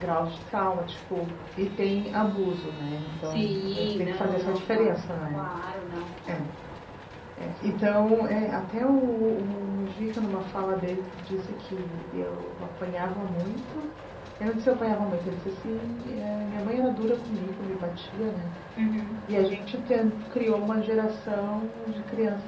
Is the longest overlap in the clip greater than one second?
Yes, from 3.2 s

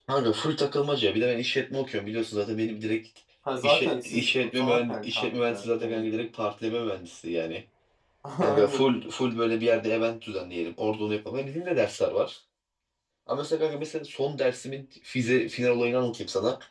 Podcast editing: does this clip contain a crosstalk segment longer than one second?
Yes, from 3.6 s

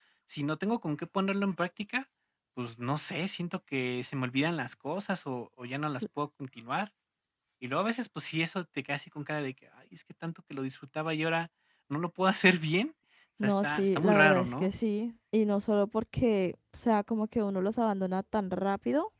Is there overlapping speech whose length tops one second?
Yes, from 13.4 s

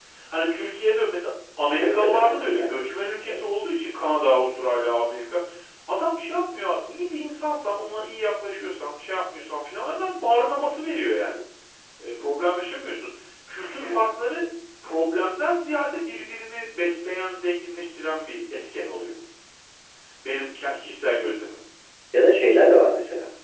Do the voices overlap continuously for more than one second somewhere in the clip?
Yes, from 1.8 s

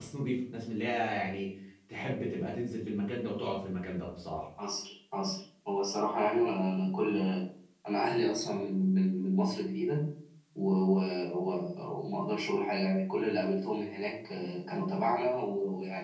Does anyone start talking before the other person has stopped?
No

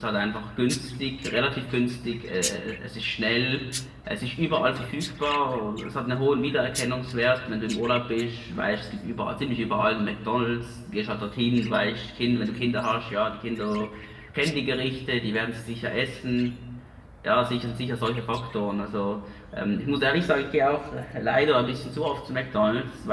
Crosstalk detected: No

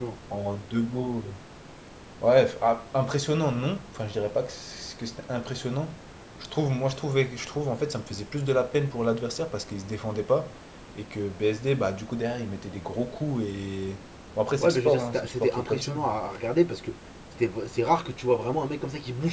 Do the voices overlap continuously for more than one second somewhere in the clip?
Yes, from 14.6 s

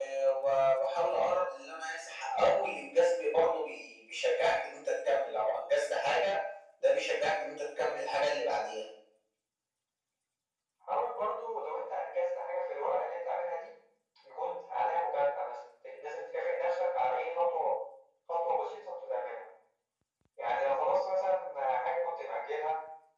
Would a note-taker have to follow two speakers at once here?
No

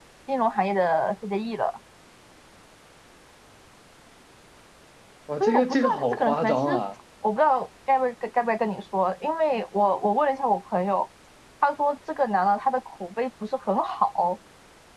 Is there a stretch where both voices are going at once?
Yes, from 5.4 s

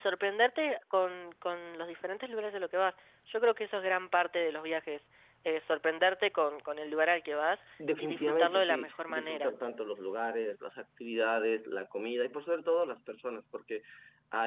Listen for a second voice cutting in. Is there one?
Yes, from 7.8 s

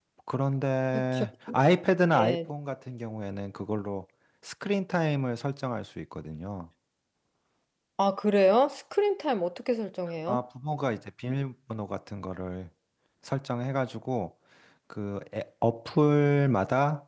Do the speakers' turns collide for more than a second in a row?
No

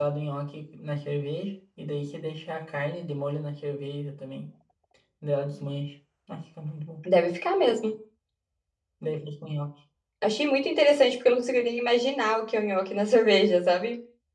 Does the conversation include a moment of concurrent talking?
No

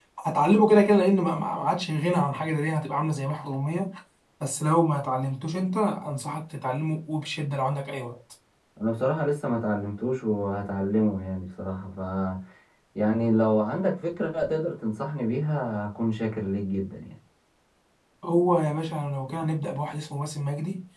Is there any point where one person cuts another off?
No

